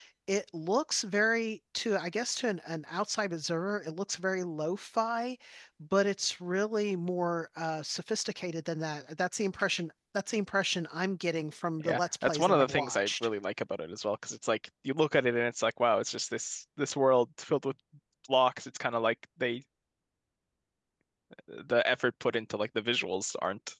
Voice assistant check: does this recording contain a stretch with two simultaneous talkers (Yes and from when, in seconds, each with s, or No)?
Yes, from 11.8 s